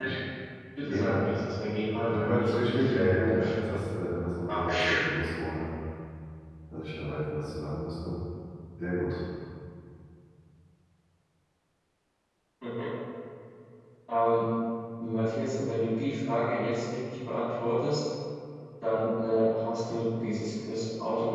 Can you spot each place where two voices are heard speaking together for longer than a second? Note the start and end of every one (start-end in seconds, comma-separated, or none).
2.1-3.8